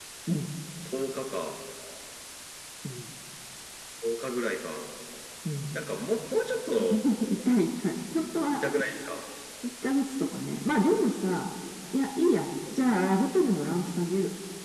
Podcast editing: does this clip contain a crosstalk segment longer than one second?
No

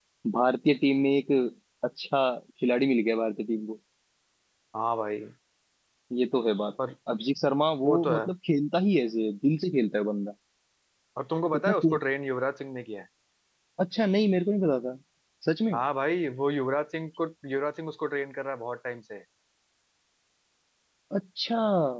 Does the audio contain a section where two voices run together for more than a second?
No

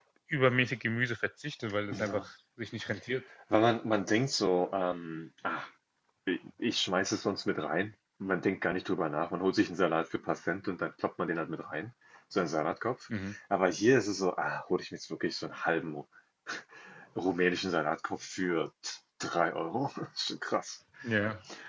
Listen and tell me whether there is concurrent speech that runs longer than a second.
No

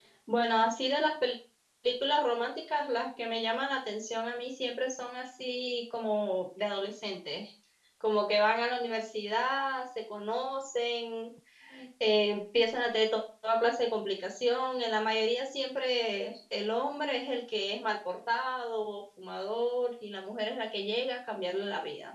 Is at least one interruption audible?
No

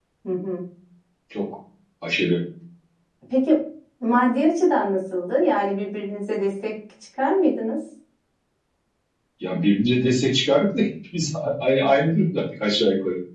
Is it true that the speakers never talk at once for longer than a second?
Yes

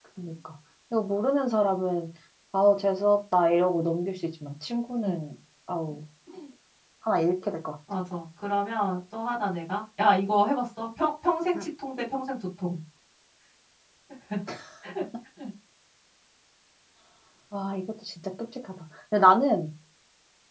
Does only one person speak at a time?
Yes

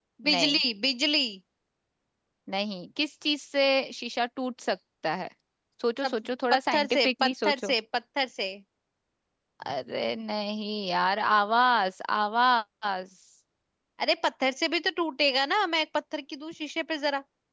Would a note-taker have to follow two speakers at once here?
Yes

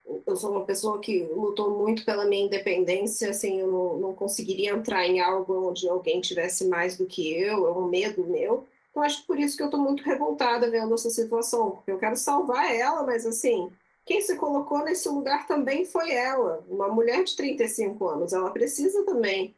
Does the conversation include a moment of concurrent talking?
No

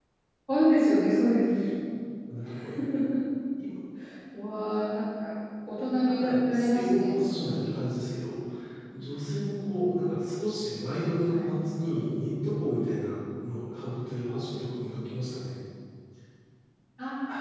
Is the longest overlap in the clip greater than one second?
Yes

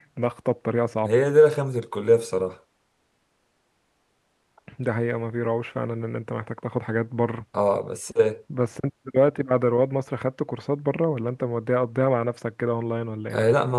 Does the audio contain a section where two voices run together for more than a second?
No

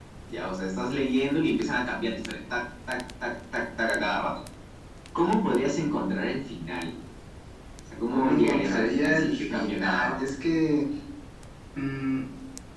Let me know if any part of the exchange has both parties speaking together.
Yes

